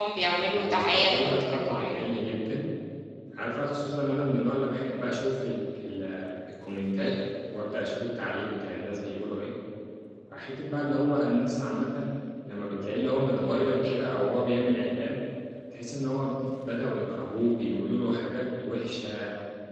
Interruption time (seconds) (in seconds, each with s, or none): 0.5 s